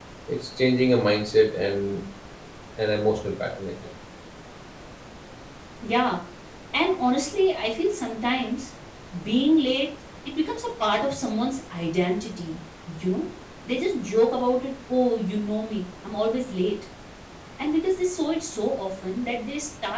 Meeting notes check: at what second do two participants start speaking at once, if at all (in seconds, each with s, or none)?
none